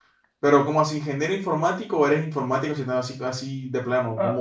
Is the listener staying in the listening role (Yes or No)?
No